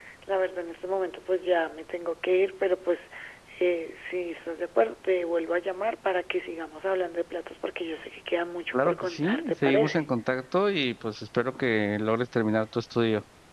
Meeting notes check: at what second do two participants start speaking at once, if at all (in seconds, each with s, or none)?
8.7 s